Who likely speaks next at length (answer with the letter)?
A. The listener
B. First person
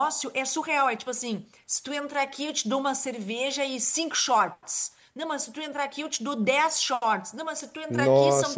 B